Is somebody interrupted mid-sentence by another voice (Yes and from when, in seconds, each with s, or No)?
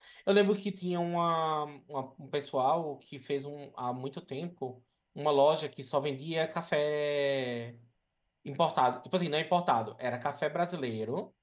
No